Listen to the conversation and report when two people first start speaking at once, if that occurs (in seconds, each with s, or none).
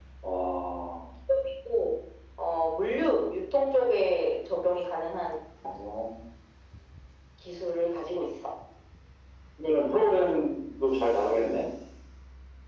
none